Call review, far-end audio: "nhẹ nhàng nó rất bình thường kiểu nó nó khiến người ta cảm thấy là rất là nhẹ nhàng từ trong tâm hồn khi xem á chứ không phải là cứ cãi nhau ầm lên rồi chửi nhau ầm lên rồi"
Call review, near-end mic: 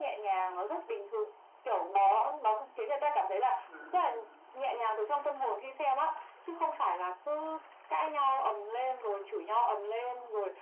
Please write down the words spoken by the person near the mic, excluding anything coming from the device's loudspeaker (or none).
ừ